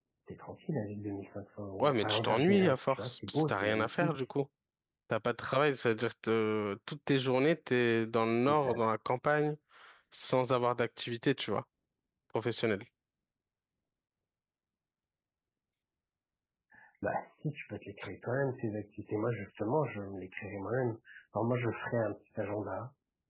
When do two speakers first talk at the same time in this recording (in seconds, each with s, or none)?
1.8 s